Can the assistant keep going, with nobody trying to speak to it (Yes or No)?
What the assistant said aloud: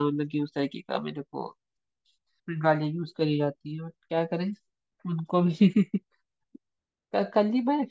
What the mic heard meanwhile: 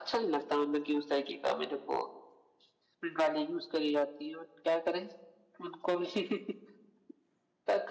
Yes